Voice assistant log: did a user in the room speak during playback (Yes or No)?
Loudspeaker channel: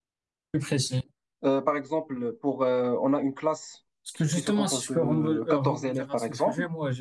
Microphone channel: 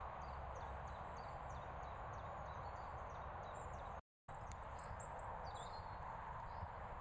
No